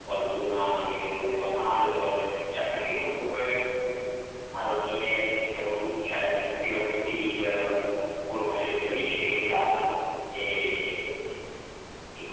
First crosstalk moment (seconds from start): none

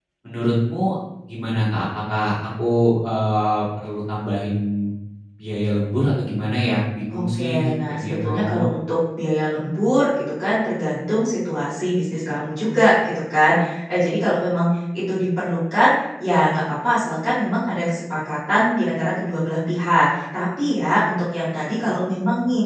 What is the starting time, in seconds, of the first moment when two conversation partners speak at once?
7 s

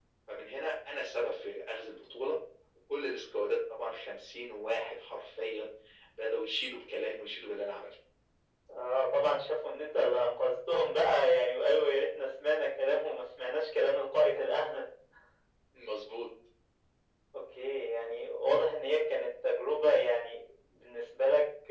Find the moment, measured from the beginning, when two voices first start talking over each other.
none

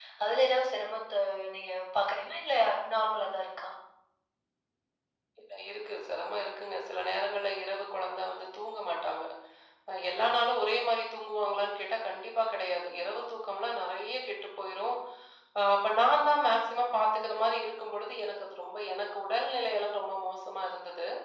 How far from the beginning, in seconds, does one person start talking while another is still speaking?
none

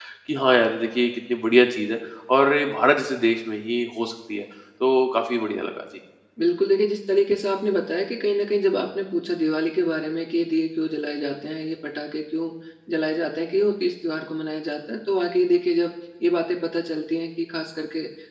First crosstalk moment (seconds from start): none

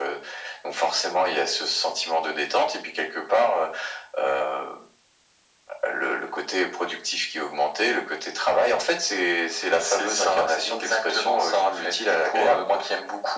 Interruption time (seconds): 10 s

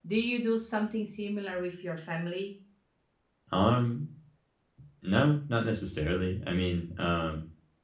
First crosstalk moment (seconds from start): none

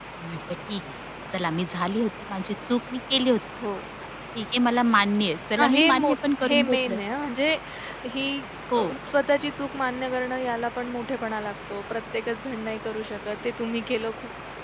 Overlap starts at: 6 s

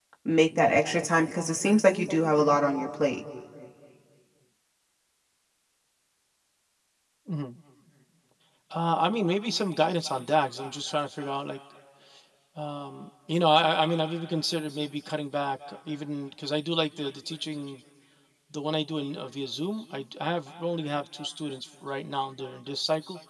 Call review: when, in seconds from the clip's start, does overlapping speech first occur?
none

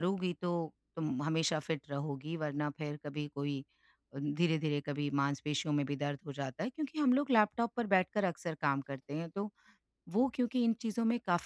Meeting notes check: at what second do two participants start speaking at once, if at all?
none

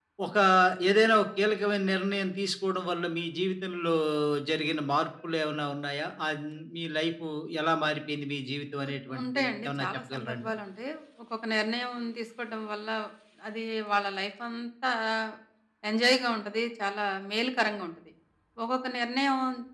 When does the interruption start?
9 s

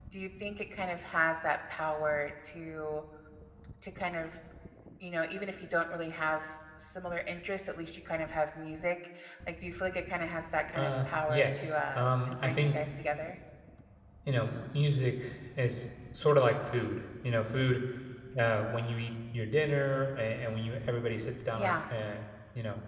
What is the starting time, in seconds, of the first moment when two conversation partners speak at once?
11 s

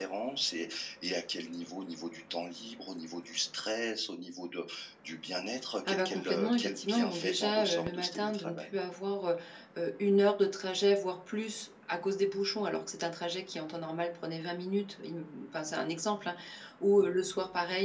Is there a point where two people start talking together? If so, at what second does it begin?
6 s

